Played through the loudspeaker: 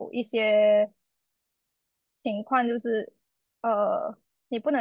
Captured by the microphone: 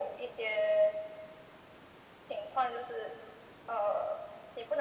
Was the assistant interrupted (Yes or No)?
No